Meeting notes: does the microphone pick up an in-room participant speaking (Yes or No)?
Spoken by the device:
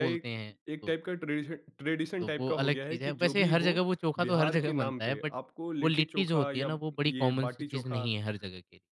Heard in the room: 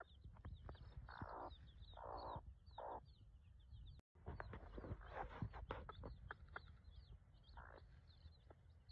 No